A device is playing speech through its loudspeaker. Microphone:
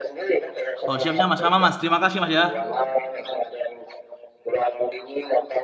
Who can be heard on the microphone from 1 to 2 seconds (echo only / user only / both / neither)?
both